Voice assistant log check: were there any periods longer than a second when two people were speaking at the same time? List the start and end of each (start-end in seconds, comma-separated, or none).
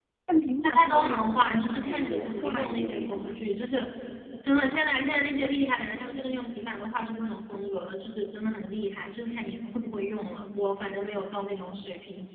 0.6-3.4